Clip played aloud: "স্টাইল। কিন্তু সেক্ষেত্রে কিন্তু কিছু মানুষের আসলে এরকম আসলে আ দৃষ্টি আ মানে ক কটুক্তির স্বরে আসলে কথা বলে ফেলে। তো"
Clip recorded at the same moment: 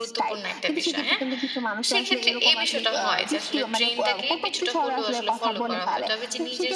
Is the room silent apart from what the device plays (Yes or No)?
No